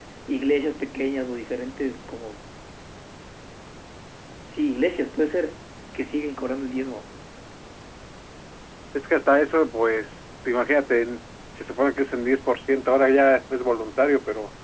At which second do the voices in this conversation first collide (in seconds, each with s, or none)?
none